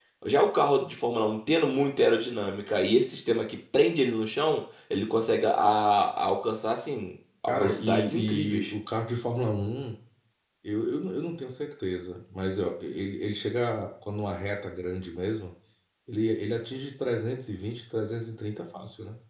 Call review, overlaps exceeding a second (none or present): present